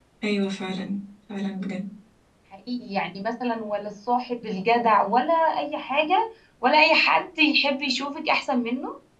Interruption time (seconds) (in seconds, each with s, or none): none